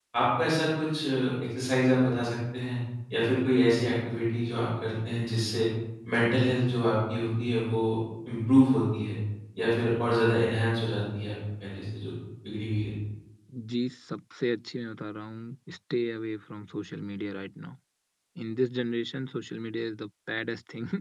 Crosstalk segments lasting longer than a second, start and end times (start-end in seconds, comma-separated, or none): none